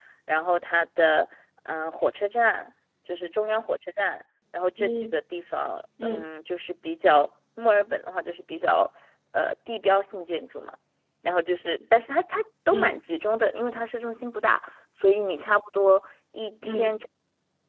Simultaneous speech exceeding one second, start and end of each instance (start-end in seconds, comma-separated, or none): none